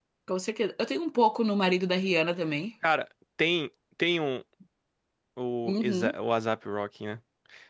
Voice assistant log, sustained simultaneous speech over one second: none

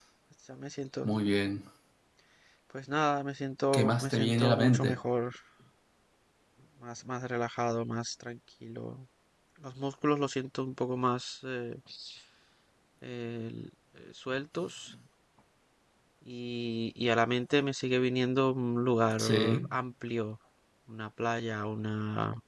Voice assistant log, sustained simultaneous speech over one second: present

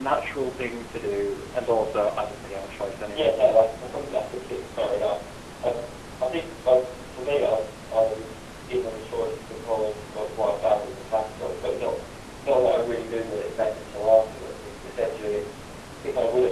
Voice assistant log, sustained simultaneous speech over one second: none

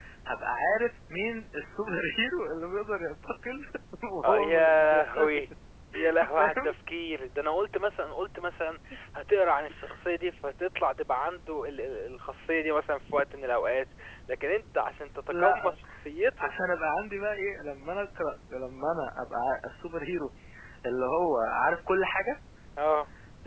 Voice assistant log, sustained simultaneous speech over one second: present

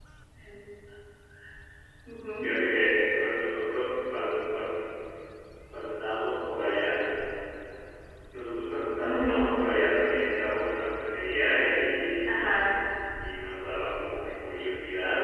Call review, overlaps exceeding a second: none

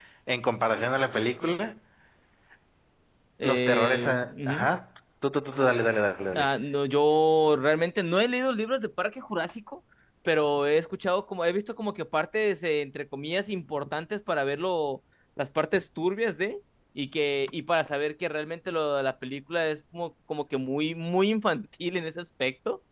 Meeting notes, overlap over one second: present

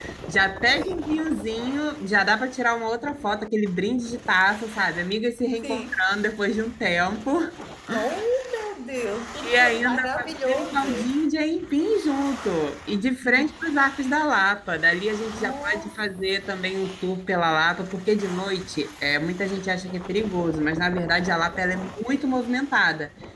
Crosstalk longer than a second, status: present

